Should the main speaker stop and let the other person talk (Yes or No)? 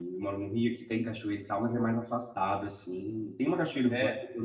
No